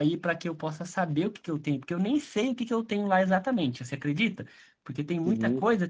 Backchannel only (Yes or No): Yes